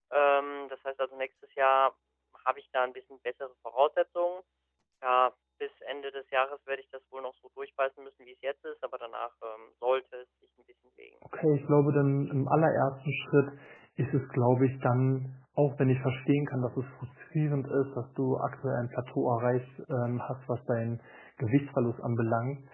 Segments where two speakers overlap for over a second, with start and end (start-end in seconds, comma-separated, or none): none